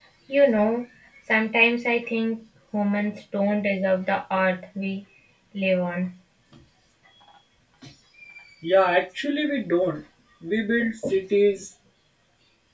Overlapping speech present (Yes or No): No